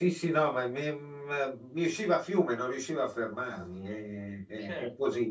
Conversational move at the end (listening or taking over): listening